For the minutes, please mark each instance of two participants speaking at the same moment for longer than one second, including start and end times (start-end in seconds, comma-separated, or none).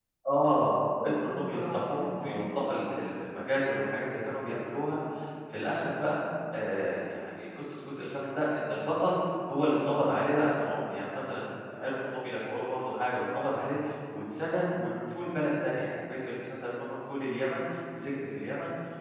1.0-2.5